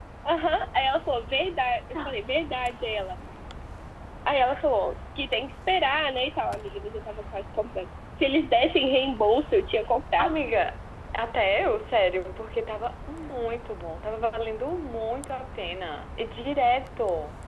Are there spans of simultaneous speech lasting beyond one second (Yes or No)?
No